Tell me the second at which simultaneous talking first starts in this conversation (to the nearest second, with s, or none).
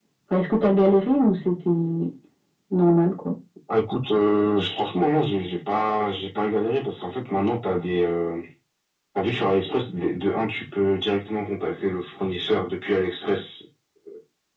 none